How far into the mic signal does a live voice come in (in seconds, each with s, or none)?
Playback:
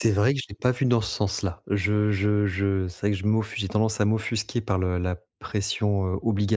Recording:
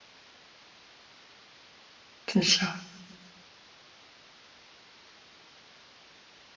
2.3 s